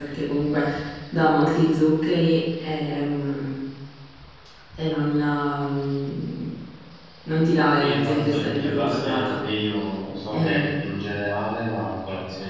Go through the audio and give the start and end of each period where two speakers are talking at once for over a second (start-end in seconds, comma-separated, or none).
7.8-9.4